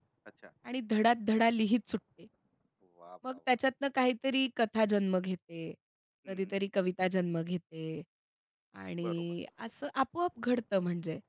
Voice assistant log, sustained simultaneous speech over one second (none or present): none